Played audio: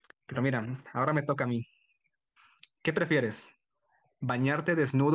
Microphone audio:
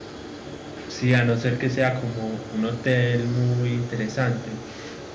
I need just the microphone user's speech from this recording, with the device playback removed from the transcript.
Sí, a no ser que sea como un hotel muy interesante.

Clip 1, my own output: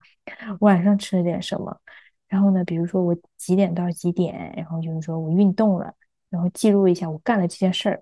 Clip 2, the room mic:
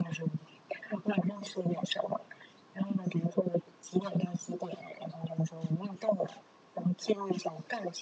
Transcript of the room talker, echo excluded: none

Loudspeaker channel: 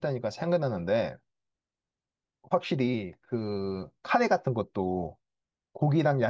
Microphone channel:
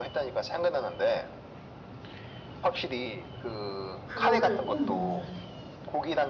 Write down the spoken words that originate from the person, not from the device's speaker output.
그거를 꼭 넣어줘야 돼.

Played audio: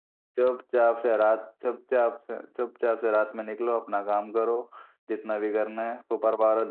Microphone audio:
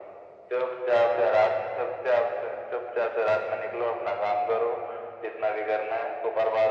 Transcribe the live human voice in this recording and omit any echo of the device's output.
none

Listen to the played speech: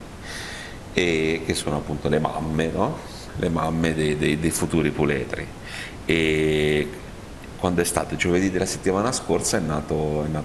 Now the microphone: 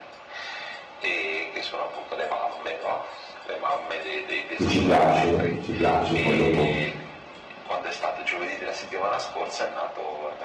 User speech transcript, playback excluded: che ci piace, ci piace, poi dopo

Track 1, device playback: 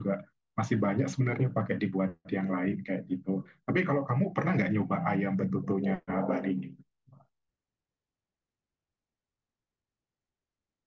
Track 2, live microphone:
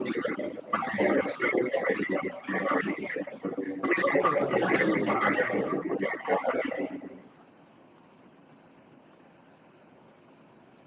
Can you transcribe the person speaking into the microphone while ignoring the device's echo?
kan kalau gado-gado kan bumbu kacangnya

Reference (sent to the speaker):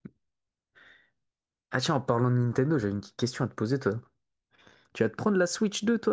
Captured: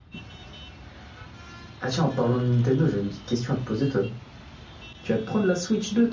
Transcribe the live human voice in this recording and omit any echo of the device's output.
none

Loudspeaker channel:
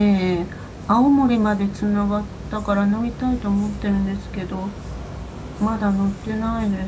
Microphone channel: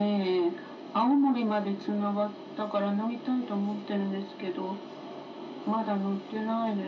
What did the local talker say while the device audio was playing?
none

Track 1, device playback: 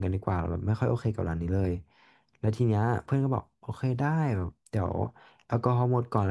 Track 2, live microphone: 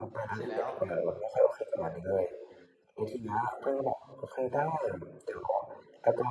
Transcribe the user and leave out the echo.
เสร็จแล้ว

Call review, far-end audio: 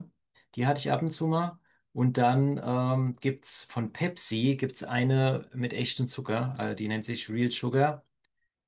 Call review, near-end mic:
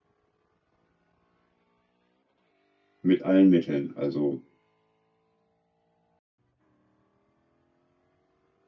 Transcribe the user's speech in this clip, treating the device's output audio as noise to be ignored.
mit allen Mitteln. Also

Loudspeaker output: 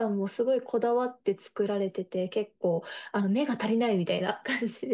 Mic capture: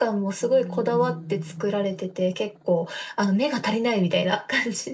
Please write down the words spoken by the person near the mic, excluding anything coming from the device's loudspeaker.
うん。

